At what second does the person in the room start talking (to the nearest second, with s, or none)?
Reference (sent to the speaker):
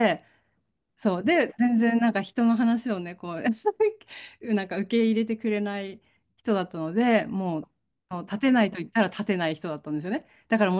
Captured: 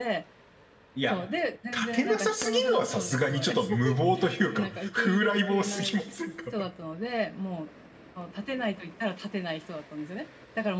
1 s